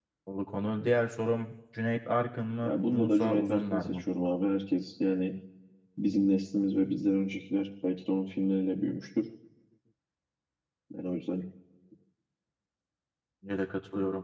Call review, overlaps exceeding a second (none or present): present